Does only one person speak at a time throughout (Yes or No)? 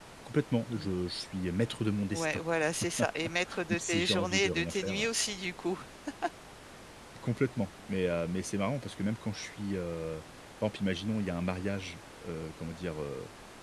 No